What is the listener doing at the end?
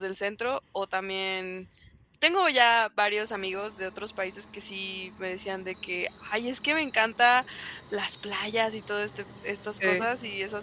listening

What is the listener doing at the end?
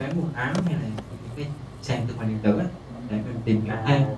taking over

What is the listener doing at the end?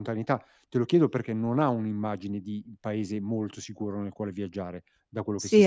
taking over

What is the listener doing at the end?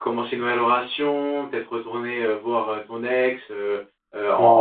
taking over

